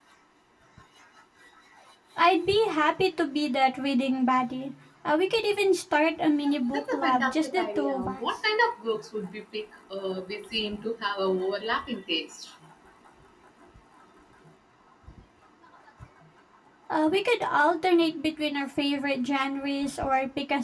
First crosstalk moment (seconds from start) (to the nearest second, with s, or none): 7 s